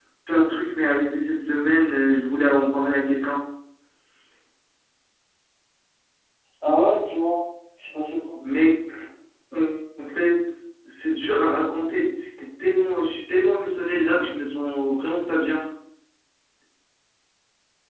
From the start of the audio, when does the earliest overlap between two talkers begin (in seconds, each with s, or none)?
none